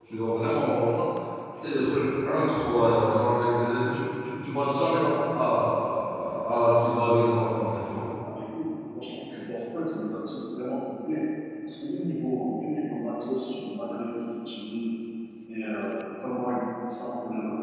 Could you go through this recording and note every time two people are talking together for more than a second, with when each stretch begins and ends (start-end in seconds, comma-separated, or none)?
none